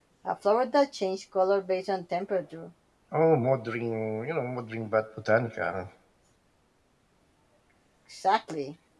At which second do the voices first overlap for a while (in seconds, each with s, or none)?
none